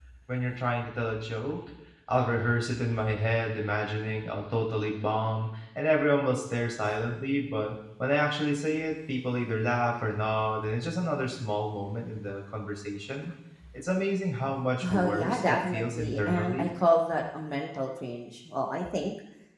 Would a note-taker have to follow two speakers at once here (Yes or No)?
Yes